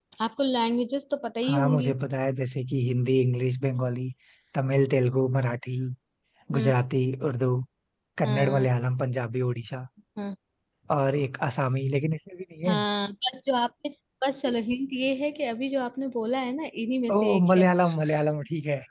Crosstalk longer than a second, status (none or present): none